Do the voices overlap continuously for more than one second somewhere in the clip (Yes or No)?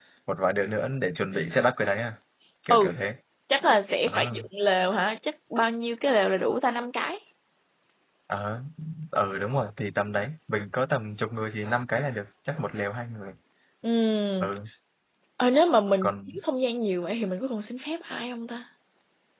No